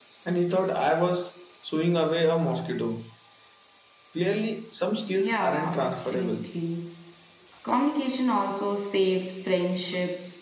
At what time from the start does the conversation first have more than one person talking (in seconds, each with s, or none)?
5.2 s